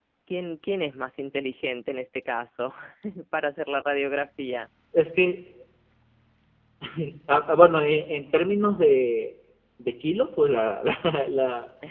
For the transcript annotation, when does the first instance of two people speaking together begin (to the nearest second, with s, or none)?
none